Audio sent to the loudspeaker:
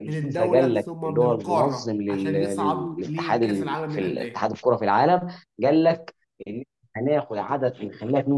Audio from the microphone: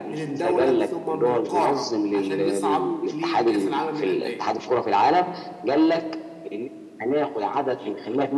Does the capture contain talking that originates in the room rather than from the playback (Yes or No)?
No